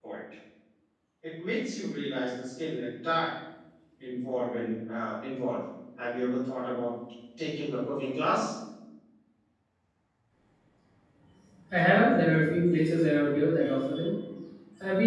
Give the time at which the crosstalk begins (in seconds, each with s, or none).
none